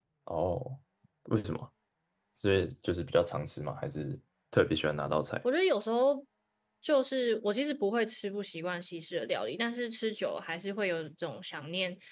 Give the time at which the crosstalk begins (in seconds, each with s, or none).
none